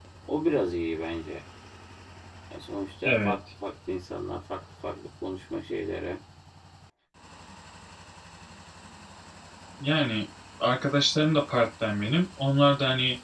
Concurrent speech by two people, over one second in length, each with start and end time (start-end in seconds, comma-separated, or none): none